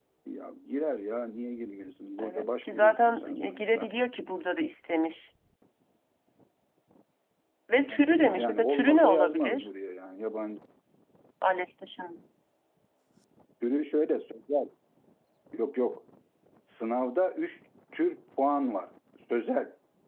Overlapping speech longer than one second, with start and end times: 2.2-3.9, 8.3-9.7

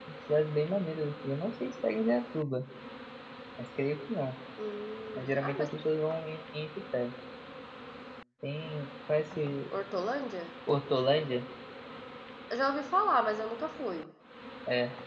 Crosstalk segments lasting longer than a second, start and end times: none

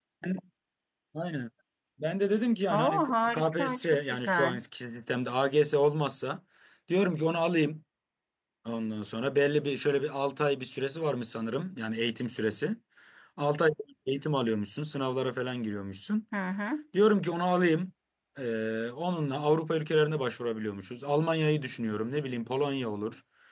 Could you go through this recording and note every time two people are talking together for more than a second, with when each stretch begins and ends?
2.7-4.6

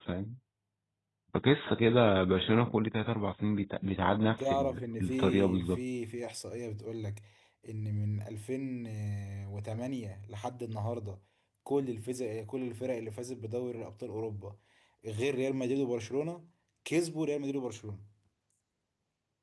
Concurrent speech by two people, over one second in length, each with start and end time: 4.4-5.8

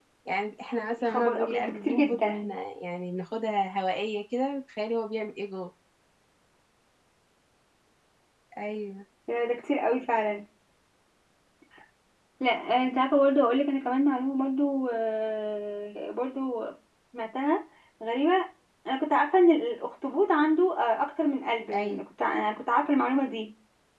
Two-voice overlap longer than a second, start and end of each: 1.0-2.5

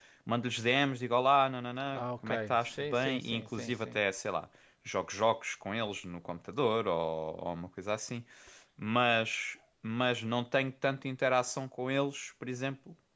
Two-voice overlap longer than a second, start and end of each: 1.9-4.0

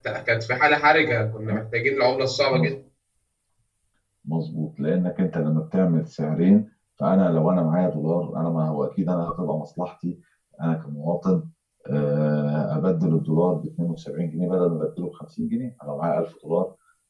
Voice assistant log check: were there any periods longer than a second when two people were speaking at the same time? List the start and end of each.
none

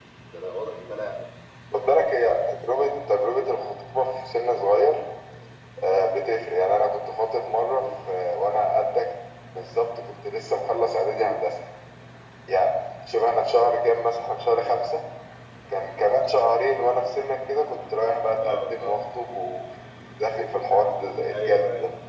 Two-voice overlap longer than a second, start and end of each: none

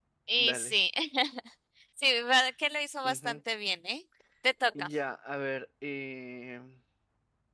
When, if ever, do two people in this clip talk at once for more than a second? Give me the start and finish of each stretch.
none

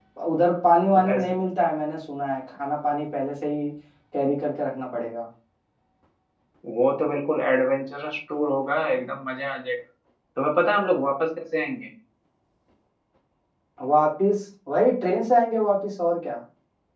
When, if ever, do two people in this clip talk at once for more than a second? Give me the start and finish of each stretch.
none

